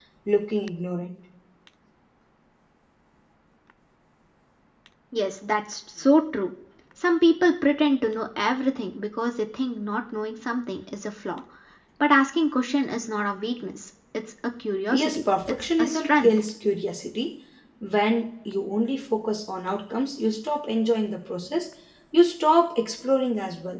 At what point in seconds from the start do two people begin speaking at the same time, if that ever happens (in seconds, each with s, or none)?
14.9 s